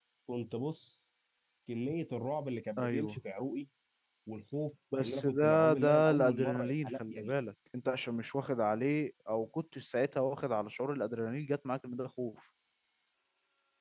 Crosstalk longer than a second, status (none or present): present